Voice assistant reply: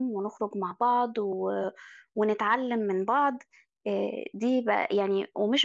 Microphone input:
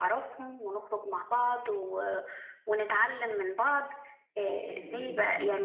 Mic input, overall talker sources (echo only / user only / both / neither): both